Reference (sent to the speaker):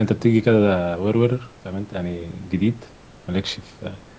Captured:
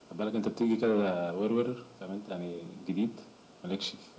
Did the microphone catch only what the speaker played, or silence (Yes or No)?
Yes